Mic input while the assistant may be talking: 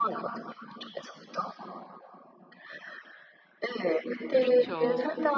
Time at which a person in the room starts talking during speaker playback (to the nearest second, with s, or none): 4 s